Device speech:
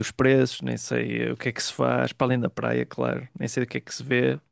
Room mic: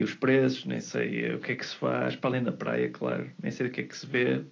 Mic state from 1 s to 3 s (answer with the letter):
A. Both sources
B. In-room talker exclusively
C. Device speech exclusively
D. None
C